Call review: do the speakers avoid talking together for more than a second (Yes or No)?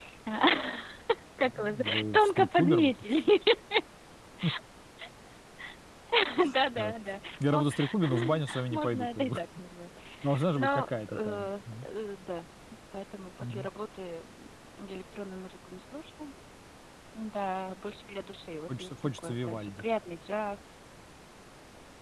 No